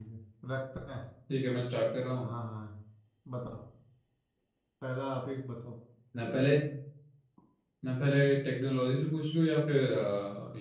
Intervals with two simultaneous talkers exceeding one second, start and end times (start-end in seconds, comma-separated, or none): none